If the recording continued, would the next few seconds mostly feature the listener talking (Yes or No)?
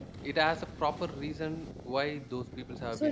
Yes